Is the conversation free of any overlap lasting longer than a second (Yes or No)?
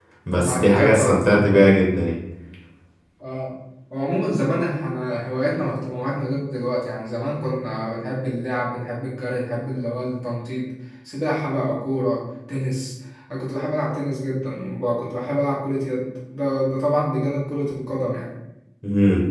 No